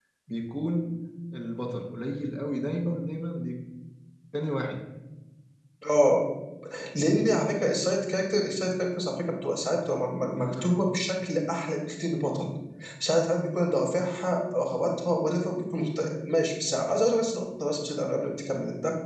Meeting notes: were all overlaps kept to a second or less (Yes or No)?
Yes